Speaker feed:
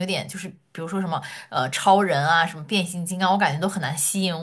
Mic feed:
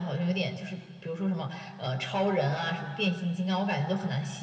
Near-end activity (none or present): none